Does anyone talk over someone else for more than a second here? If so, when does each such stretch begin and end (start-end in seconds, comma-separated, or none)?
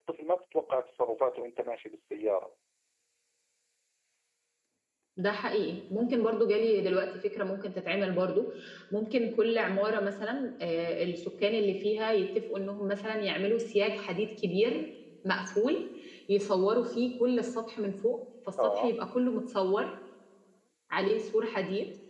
none